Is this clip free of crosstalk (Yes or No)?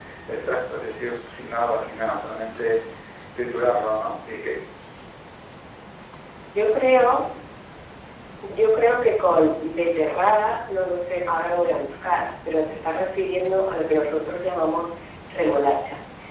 Yes